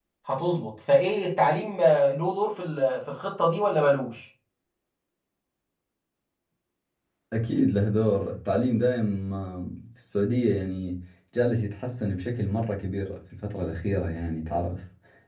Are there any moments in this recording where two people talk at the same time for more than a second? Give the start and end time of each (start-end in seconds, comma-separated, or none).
none